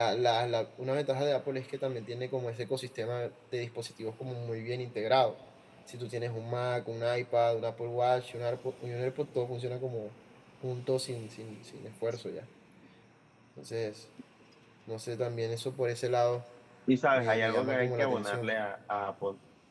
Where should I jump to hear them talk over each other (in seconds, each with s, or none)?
17.1 s